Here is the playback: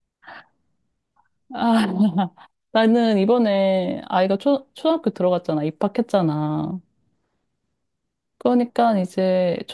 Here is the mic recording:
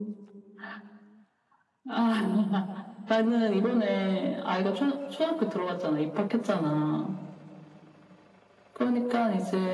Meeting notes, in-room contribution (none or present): none